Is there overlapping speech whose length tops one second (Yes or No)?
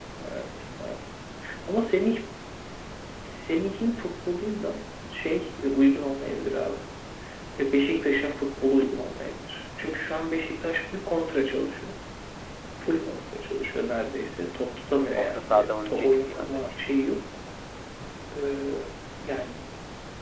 Yes